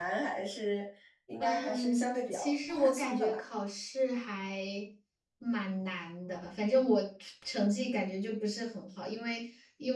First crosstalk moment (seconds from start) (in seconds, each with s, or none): 1.4 s